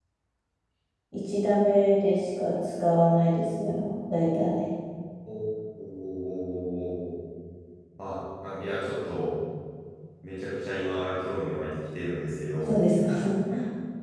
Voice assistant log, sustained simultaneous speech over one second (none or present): none